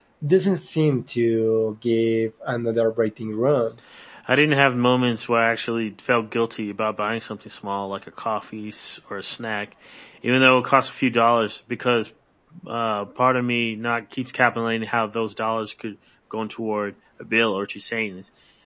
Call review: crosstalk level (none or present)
none